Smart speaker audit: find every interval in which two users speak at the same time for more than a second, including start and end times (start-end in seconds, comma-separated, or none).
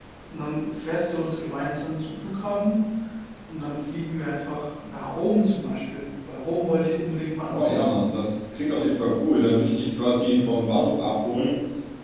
none